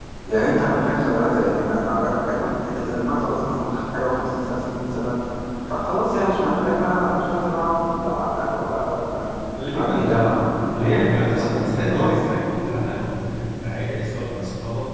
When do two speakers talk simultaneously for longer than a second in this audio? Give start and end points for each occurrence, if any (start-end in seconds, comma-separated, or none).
10.8-12.2